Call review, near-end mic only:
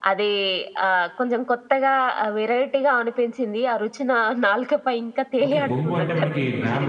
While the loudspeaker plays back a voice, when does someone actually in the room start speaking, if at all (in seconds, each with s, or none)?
5.5 s